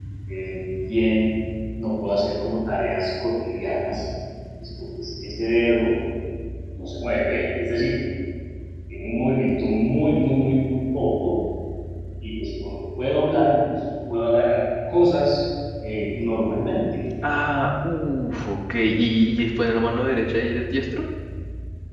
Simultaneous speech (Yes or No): No